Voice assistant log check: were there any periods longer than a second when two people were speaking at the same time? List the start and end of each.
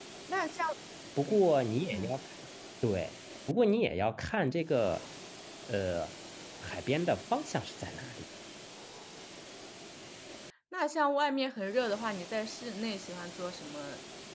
none

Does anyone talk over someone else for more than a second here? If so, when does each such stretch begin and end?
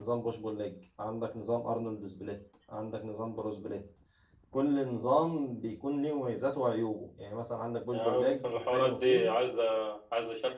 7.9-9.2

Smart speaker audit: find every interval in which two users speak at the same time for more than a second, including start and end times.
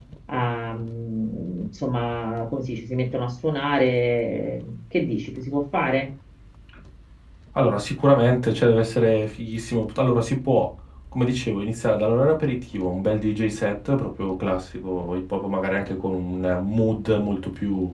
none

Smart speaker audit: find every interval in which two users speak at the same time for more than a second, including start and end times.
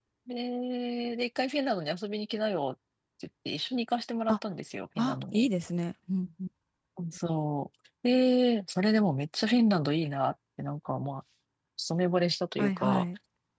none

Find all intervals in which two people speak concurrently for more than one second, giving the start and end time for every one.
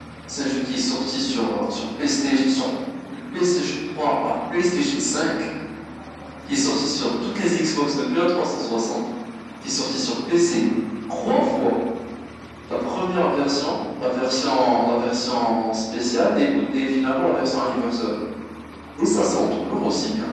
none

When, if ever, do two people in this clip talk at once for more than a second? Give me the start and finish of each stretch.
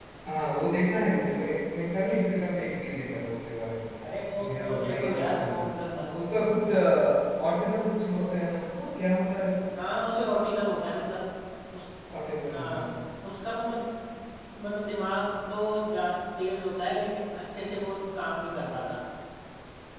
4.4-5.7

